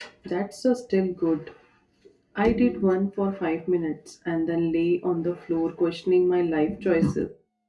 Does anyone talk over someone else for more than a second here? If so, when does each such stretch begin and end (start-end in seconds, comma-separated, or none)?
none